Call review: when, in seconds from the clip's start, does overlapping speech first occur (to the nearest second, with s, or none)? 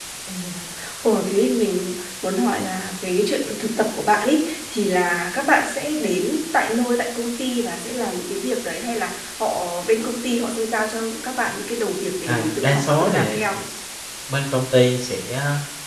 12 s